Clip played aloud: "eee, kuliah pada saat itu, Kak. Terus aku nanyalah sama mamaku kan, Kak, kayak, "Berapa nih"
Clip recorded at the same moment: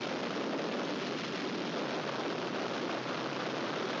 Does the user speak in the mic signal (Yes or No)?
No